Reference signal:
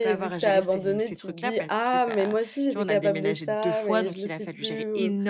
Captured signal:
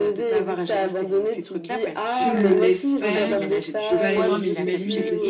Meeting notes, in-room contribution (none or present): present